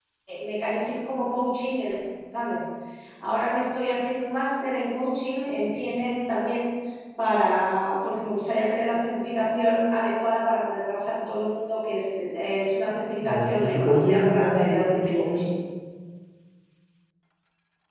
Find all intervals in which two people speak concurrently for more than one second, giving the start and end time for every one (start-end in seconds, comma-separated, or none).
13.2-15.5